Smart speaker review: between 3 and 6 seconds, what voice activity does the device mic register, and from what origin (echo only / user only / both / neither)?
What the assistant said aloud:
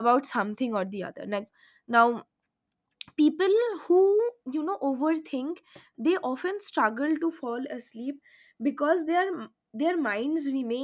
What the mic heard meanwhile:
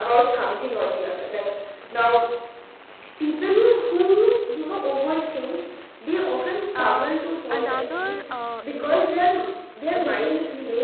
echo only